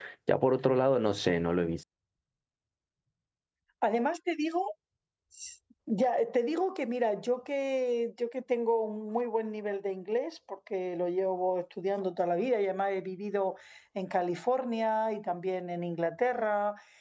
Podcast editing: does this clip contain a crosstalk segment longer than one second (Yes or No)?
No